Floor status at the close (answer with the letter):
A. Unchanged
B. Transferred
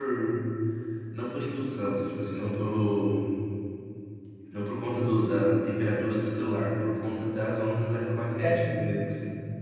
B